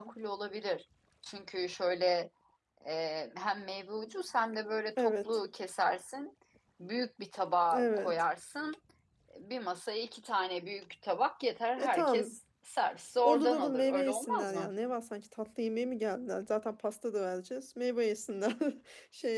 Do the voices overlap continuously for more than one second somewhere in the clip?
Yes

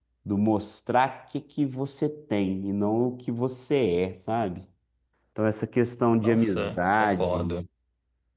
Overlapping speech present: Yes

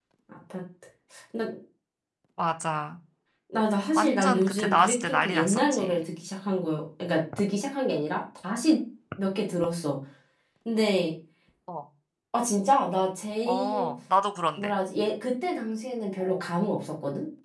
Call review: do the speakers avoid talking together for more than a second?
No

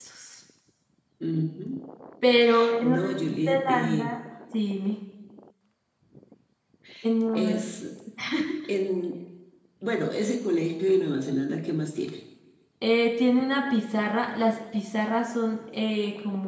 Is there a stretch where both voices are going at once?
Yes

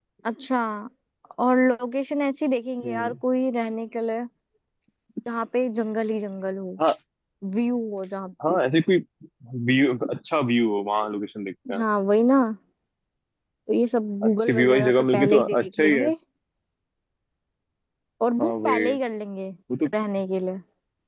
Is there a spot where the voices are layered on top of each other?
Yes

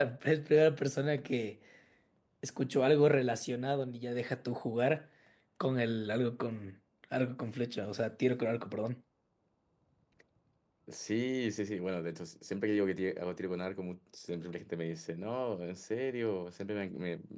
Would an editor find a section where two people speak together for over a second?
No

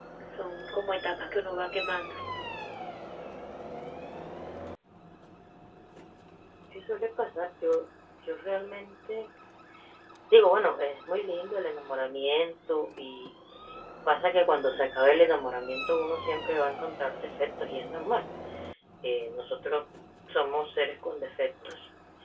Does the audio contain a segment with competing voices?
No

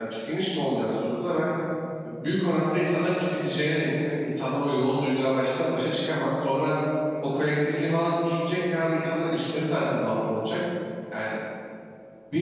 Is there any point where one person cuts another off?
No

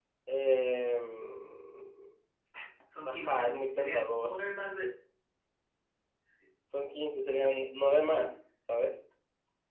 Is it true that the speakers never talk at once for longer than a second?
No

